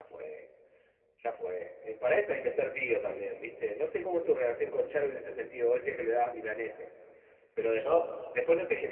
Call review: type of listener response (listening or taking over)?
listening